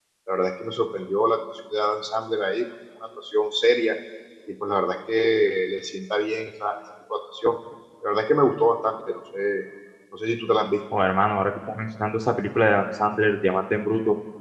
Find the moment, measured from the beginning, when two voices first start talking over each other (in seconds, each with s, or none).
none